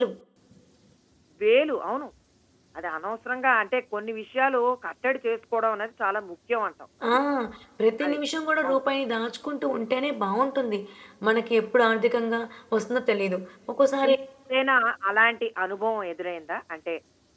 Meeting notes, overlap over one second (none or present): none